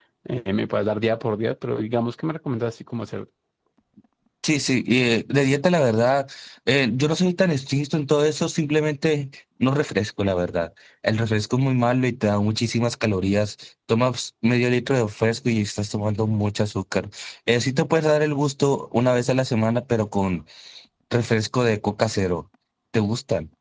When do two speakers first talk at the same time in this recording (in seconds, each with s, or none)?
none